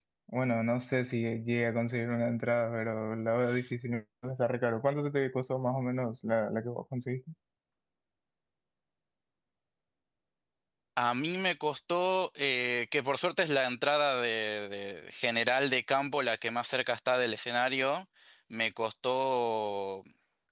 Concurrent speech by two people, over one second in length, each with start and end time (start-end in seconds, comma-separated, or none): none